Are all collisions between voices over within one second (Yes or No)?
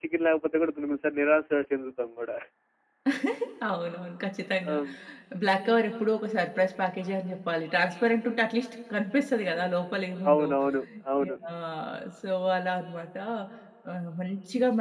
Yes